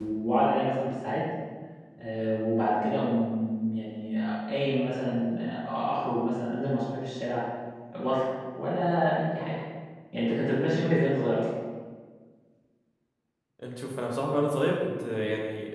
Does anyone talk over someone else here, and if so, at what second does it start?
none

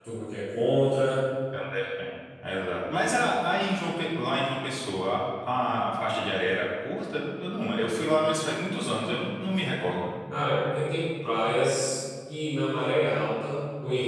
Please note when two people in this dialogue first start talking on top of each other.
none

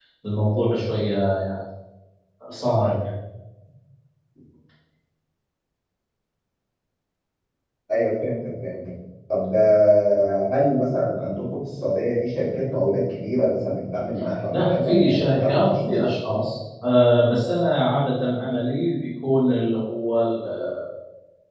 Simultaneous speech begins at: 14.5 s

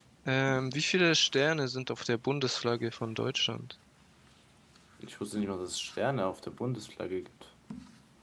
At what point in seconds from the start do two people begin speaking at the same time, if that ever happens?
none

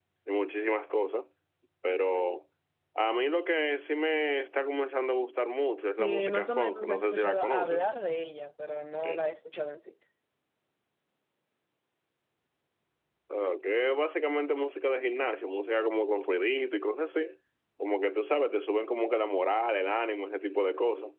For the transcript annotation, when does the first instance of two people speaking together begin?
5.9 s

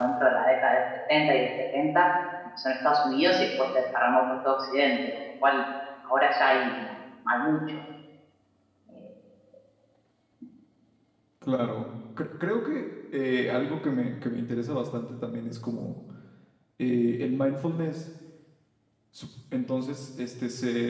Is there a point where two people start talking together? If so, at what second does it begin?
none

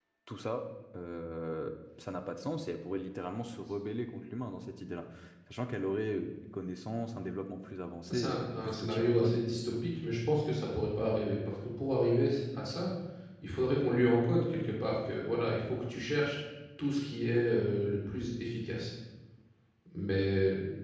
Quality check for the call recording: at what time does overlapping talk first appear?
8.1 s

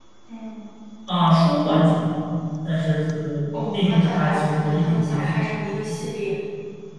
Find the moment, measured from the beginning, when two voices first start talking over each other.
3.7 s

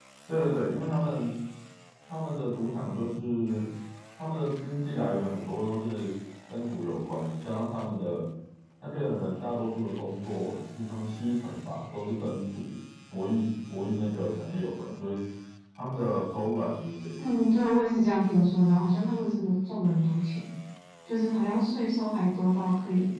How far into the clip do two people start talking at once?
none

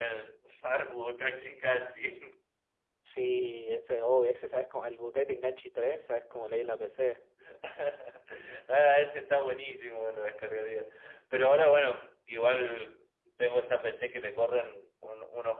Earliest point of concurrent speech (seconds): none

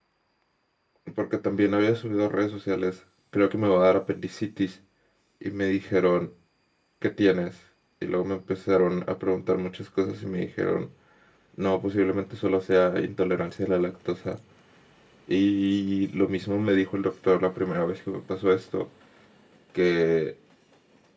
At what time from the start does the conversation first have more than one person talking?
none

